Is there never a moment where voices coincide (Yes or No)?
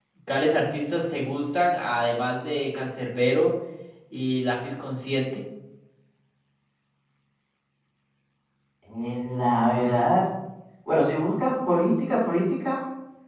Yes